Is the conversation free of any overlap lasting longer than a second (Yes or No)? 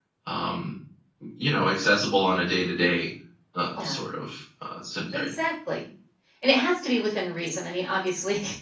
Yes